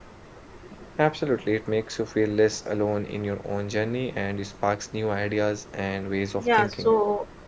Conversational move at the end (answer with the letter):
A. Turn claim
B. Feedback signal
A